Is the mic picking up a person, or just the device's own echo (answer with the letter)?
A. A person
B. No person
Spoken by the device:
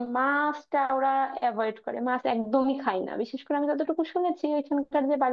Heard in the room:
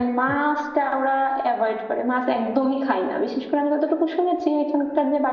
B